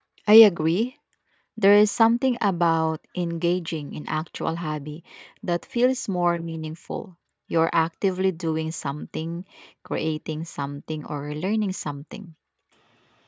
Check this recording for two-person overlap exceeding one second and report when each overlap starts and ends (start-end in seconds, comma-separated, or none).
none